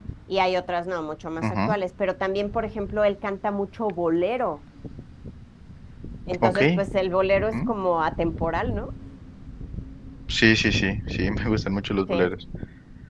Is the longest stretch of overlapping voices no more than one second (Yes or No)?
Yes